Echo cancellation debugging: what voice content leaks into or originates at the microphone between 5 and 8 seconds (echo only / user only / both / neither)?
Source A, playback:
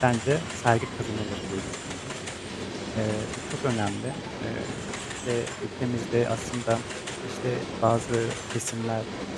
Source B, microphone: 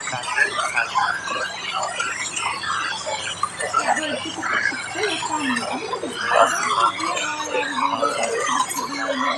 both